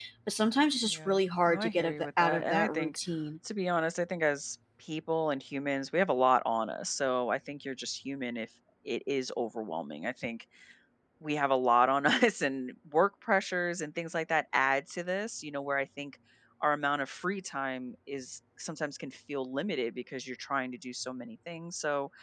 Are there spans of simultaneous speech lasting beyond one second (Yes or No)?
Yes